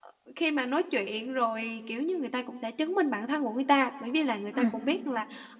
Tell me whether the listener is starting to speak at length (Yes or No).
No